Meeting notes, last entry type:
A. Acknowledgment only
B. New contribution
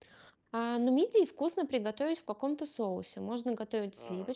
A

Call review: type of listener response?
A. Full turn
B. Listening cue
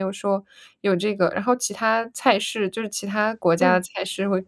B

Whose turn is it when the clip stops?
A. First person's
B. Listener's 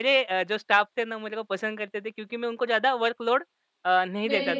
A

